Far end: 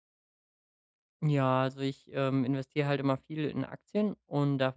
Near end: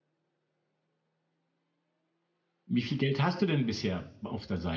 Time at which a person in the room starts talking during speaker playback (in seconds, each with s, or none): 2.6 s